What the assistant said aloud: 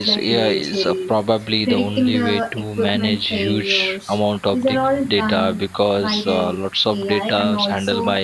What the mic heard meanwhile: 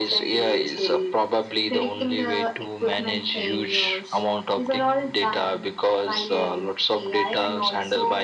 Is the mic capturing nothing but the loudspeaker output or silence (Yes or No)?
Yes